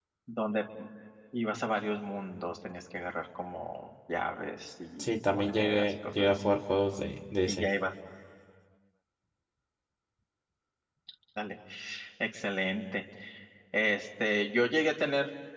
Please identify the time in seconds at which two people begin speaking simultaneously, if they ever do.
5 s

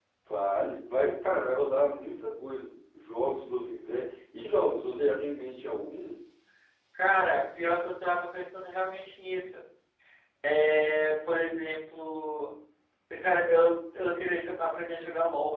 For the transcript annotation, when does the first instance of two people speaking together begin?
none

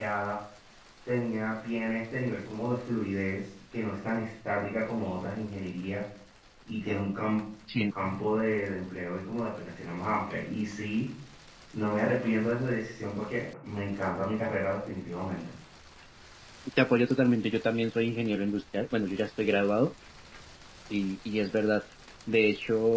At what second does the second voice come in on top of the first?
none

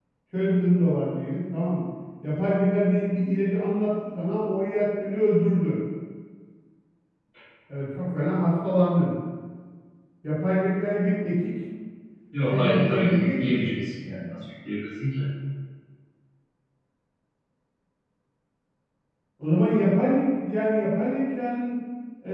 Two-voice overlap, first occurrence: 13 s

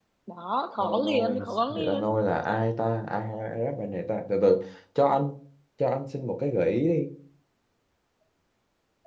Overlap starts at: 1 s

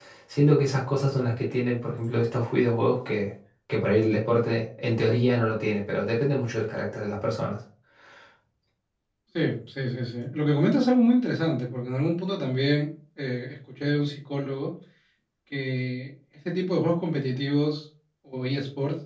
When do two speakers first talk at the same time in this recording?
none

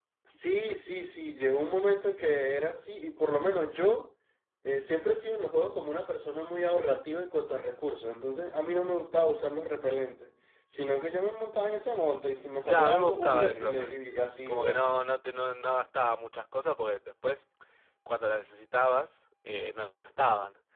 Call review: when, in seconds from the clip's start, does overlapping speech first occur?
13 s

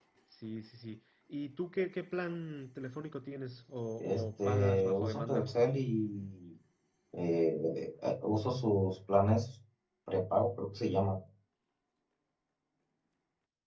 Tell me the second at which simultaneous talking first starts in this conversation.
4 s

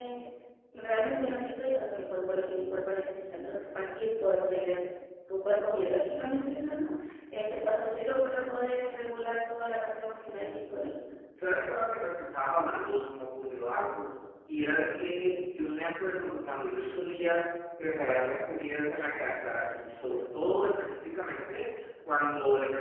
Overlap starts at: none

